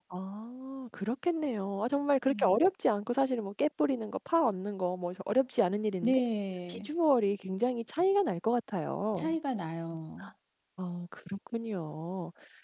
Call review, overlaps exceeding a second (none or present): none